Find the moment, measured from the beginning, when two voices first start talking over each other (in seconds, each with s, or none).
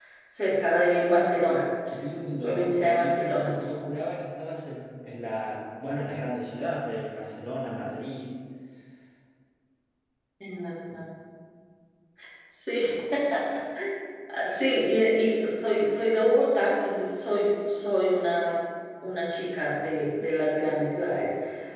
1.9 s